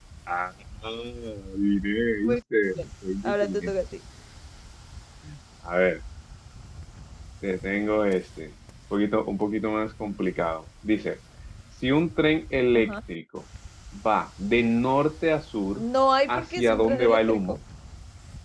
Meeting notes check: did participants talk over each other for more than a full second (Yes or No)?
Yes